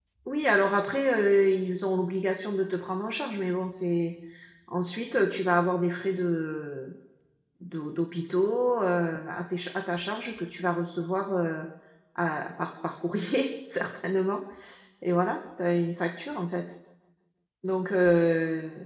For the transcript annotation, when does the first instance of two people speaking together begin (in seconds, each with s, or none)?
none